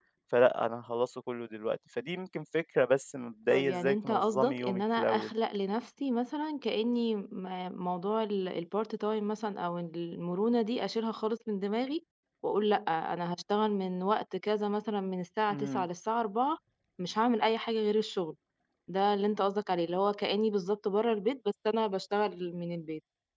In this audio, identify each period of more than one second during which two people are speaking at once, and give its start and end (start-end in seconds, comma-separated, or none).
3.5-5.3